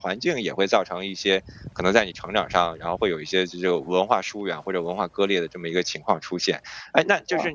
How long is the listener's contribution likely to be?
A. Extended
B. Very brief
B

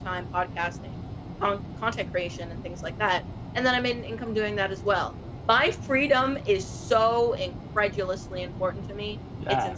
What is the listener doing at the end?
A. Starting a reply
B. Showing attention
A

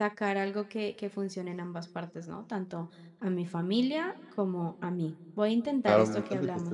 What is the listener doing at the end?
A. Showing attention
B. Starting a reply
B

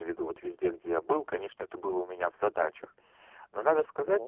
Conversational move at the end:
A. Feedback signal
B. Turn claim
A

